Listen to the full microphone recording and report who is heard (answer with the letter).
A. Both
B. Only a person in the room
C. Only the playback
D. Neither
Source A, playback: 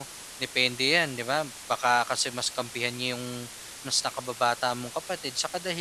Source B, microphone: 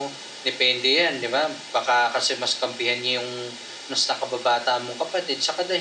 C